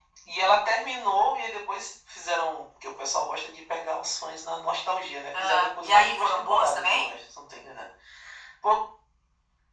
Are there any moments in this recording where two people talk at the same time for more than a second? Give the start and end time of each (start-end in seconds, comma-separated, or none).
5.4-7.1